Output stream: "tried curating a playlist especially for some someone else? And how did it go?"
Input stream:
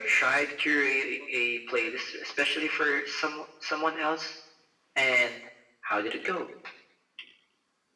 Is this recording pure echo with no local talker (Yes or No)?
Yes